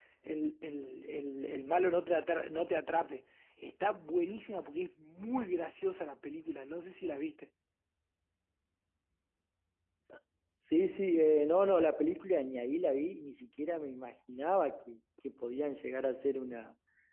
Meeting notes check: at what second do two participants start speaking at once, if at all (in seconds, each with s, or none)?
none